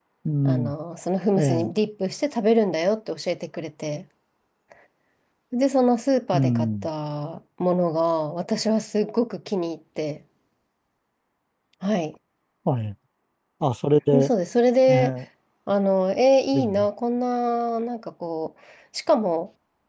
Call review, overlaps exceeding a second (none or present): none